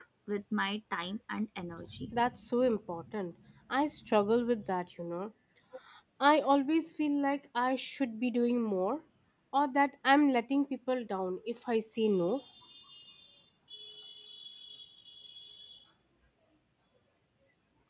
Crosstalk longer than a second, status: none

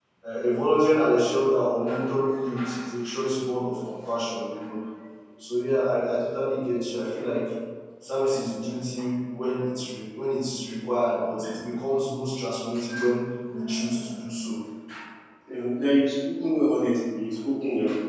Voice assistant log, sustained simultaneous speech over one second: none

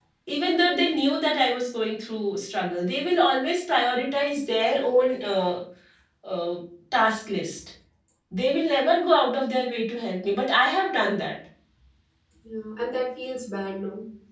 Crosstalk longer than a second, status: none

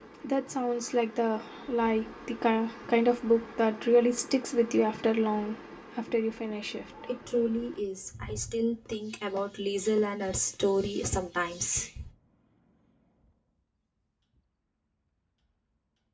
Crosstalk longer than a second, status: none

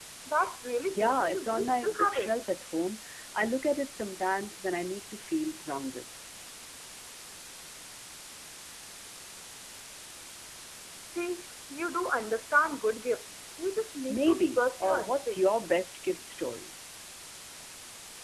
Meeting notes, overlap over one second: present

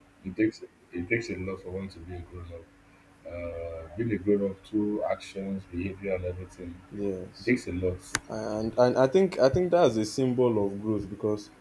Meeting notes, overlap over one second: none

